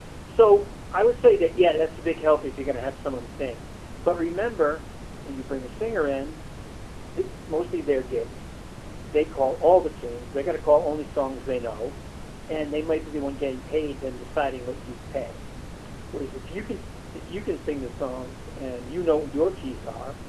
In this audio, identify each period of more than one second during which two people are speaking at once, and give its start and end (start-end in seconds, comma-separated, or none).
none